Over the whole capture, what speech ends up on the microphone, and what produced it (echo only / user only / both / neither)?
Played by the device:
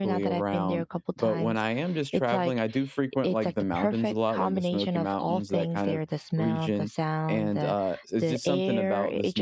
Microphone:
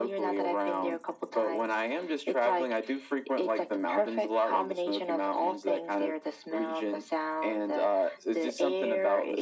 echo only